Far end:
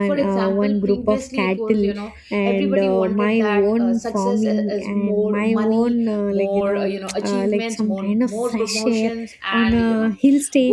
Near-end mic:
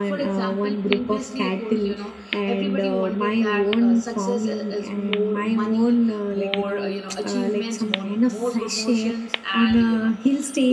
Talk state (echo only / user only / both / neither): echo only